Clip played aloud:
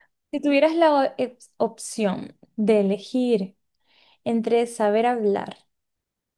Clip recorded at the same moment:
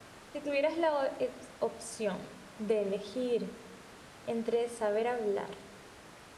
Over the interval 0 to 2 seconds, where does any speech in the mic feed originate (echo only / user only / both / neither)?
echo only